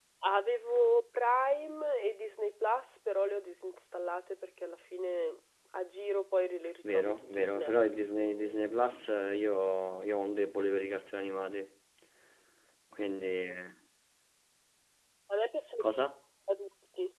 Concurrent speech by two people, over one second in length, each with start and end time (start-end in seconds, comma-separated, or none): 6.9-8.6